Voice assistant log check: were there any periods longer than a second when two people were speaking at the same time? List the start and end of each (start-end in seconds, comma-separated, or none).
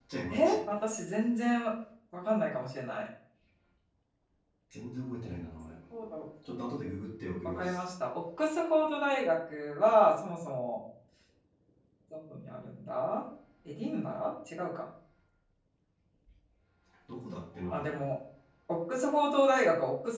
none